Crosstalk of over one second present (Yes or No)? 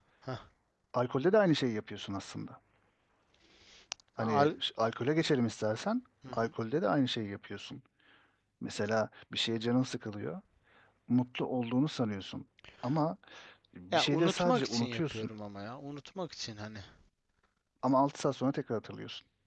Yes